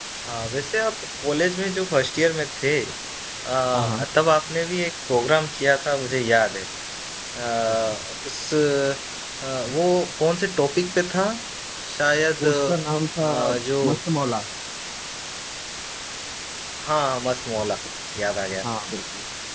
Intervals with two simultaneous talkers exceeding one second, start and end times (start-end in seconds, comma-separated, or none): none